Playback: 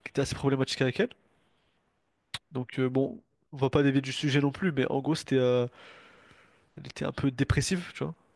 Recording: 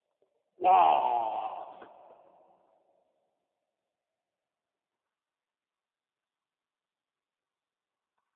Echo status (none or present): none